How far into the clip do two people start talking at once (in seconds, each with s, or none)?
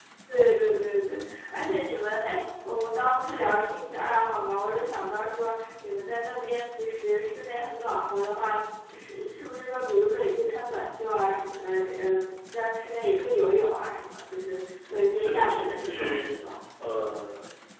15.1 s